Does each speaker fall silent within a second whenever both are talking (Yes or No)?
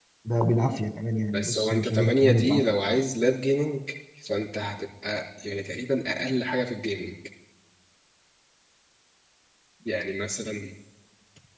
No